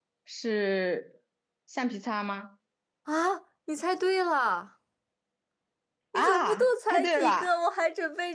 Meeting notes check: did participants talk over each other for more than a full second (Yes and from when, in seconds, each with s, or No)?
Yes, from 6.1 s